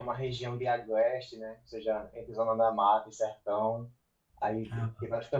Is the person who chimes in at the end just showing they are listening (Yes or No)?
Yes